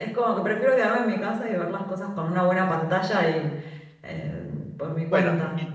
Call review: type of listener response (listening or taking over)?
taking over